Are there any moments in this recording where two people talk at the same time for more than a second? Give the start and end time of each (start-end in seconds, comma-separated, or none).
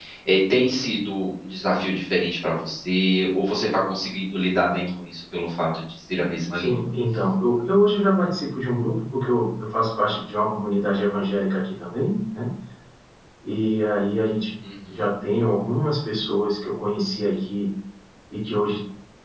none